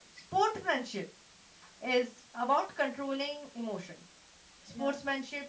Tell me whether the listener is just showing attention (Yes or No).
Yes